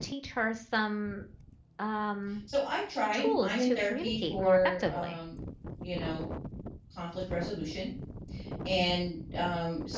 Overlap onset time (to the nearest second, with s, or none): 3 s